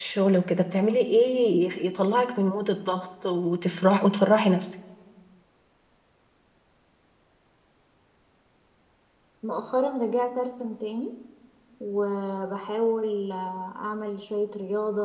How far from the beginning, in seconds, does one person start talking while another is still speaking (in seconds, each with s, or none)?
none